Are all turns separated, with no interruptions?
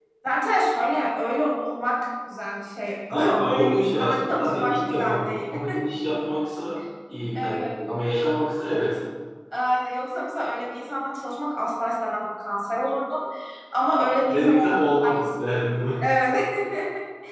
No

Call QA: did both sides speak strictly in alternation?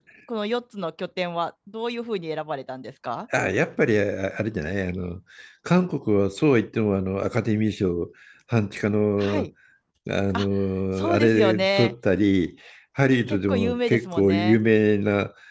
No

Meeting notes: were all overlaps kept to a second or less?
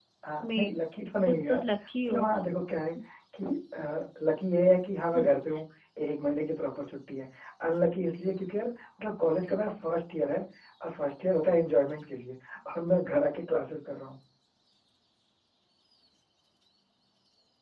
Yes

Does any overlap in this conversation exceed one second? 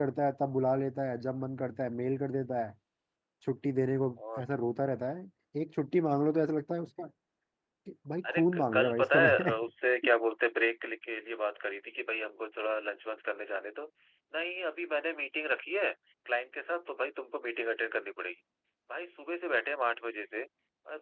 Yes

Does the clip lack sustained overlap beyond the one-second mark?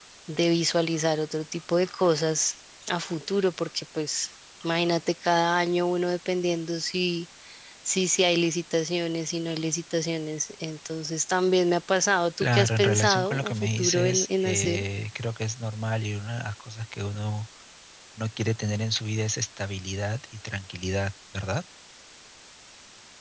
No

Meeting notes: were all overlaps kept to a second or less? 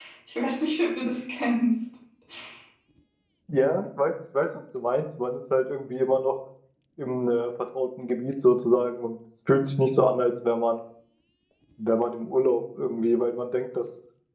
Yes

